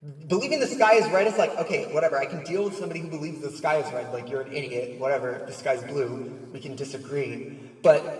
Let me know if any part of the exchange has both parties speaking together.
No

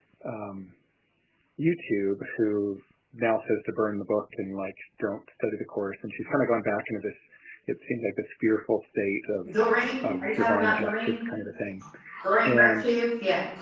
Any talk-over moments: Yes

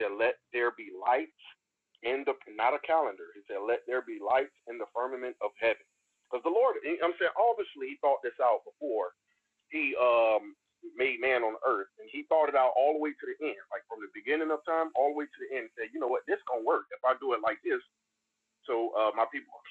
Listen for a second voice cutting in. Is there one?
No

